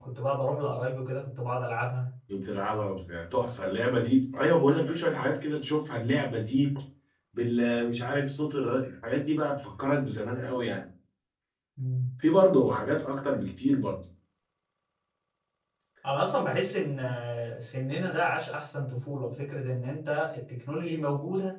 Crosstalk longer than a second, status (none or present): none